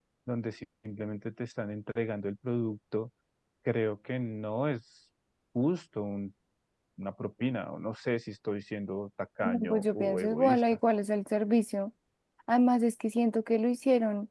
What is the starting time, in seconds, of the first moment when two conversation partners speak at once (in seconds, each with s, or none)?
9.4 s